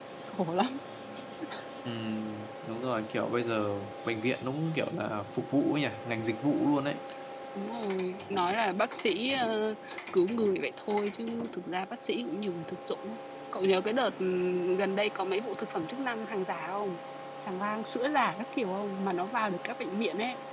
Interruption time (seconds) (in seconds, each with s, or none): none